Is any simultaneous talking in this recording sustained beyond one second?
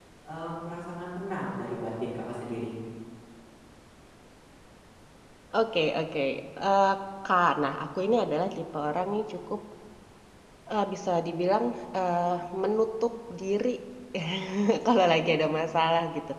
No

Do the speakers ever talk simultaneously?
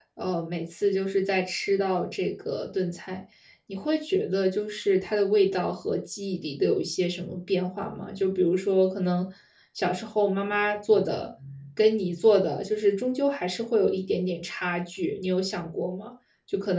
No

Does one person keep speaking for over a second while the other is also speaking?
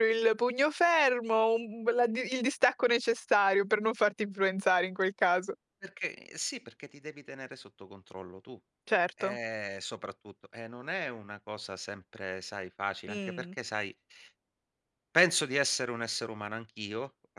No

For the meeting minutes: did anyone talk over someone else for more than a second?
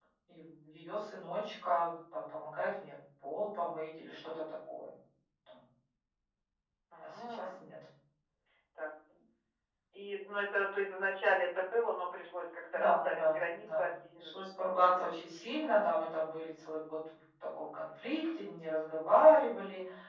Yes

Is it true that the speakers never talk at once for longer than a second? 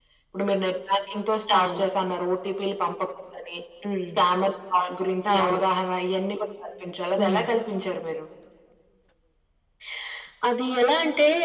Yes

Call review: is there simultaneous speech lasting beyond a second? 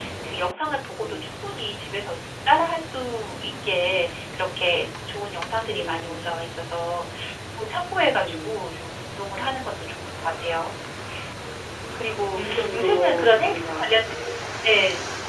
Yes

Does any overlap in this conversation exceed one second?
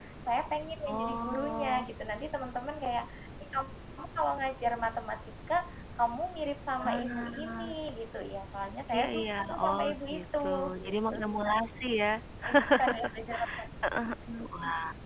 Yes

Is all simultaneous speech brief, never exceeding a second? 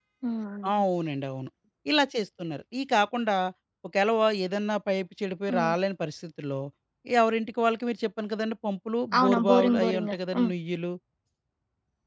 No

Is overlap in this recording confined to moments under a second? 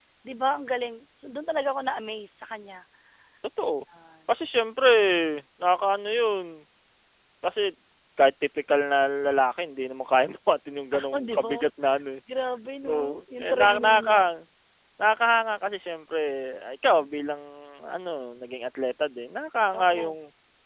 No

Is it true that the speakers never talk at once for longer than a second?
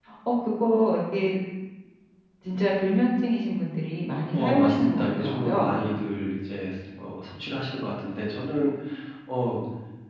No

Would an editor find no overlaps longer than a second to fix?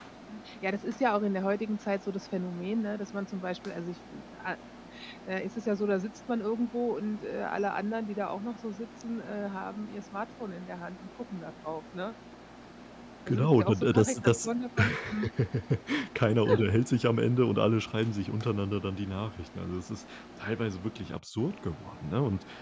No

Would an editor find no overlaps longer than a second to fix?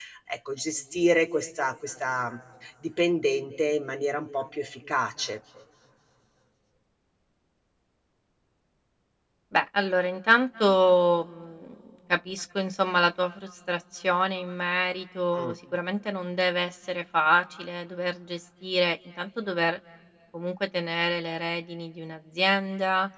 Yes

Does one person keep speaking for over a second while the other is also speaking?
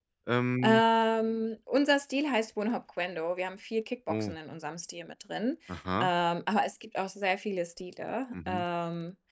No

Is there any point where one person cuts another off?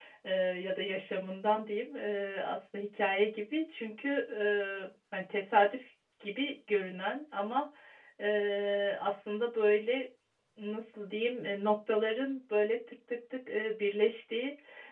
No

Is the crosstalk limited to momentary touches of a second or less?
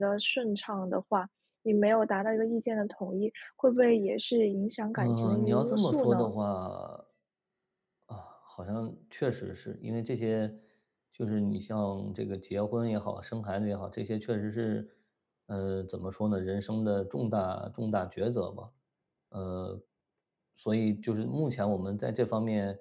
No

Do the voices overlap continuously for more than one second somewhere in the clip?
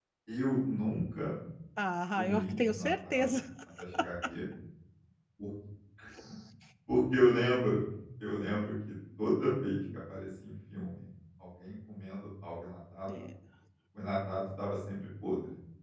Yes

